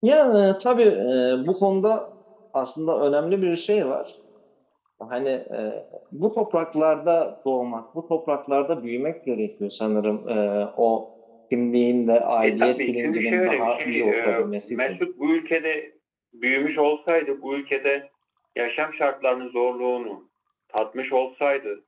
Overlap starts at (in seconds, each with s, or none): 12.4 s